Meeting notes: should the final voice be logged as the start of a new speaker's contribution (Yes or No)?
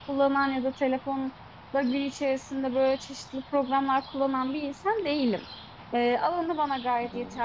No